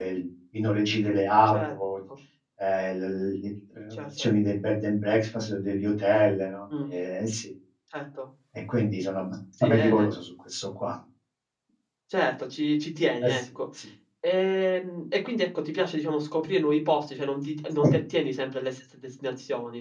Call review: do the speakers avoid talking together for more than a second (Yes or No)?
Yes